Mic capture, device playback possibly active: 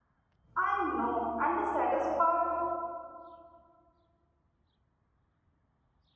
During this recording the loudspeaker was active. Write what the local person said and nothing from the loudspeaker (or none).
I know, and the saddest part,